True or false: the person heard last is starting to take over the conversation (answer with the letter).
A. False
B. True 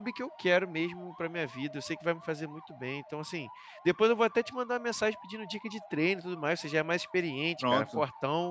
A